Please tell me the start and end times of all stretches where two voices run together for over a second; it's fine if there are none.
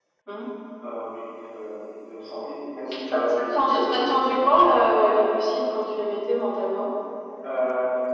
3.1-4.4

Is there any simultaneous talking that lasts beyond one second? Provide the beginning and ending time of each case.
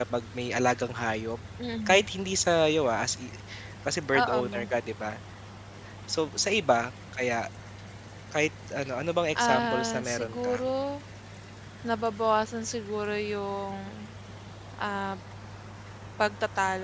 9.3-10.6

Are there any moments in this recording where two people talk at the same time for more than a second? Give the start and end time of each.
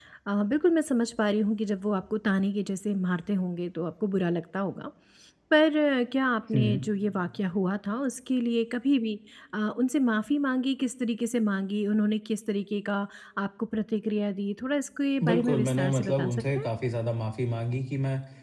15.2-16.7

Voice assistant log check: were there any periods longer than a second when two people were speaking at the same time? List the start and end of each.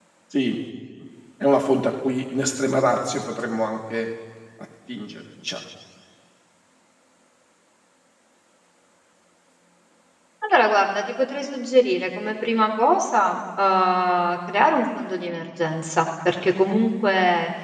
none

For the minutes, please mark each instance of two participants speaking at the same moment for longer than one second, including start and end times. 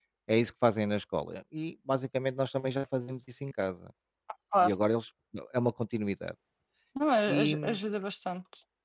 none

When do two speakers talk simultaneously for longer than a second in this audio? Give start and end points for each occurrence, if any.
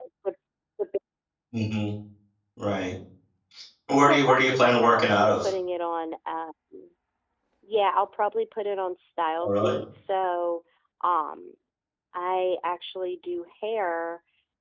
4.1-5.5

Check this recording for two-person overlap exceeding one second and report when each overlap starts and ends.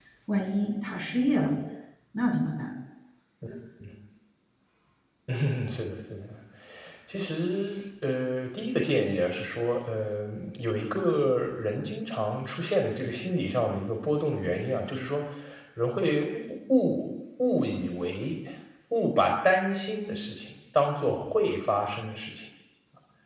none

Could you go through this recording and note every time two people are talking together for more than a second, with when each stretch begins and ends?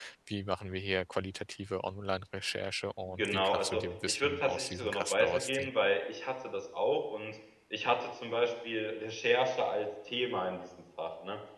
3.2-5.7

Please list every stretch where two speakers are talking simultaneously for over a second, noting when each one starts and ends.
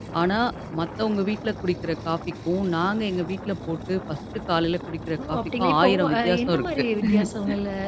5.3-6.8

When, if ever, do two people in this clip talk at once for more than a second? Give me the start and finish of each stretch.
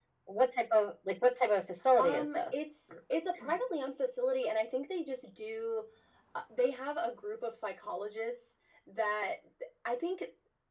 none

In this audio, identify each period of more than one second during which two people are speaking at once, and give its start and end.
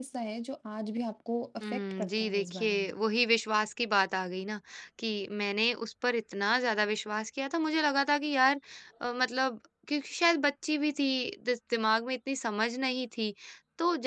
1.6-3.0

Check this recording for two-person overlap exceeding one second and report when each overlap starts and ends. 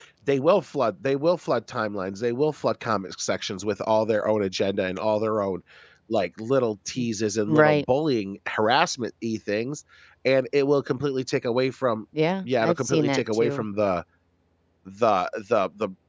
12.4-13.6

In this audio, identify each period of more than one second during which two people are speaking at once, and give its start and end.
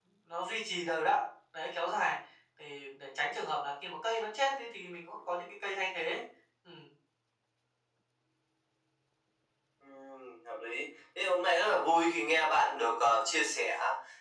none

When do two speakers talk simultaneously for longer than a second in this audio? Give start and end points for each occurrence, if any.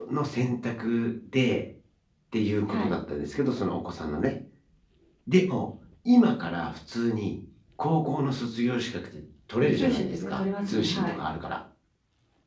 9.6-11.2

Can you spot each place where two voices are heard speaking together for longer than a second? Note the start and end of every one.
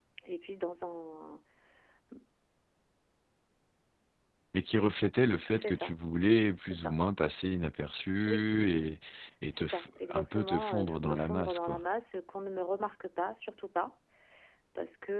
9.5-11.8

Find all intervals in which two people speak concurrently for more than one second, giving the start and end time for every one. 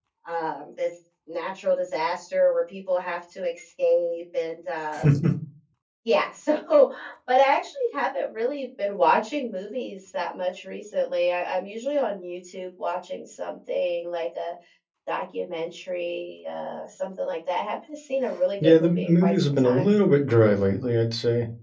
18.6-19.9

